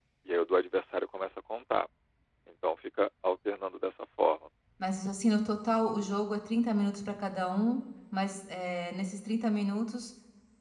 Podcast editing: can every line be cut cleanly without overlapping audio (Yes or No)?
Yes